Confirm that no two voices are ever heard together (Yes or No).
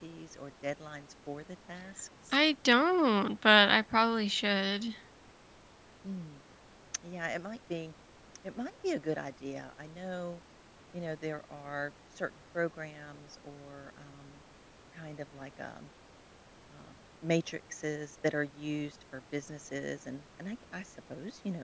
Yes